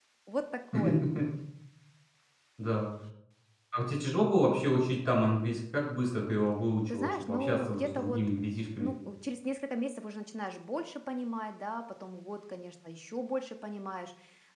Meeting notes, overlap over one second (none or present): present